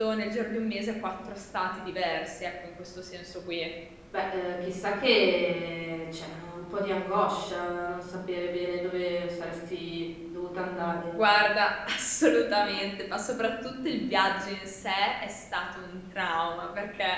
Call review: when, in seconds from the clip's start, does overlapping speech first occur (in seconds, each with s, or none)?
none